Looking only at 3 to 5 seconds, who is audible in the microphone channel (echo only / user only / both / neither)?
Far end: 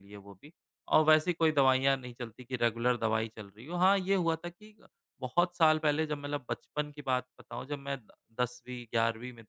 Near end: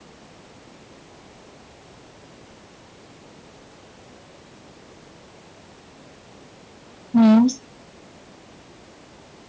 neither